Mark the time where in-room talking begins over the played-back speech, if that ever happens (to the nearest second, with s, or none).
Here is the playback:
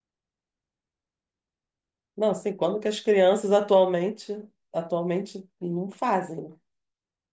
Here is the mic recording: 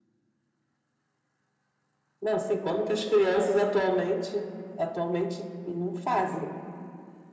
none